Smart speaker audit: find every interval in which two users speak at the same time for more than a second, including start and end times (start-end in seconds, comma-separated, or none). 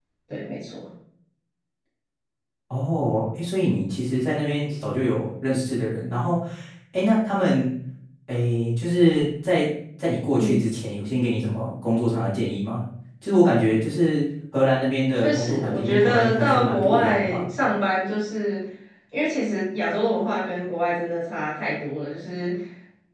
15.1-17.4